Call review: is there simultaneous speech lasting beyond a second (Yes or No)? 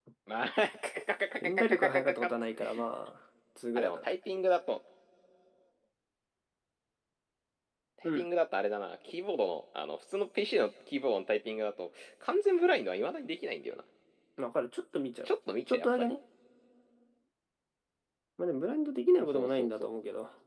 Yes